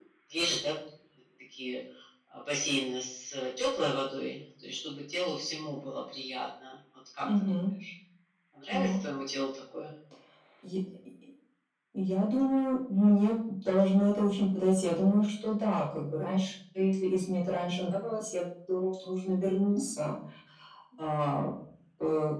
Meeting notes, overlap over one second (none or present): none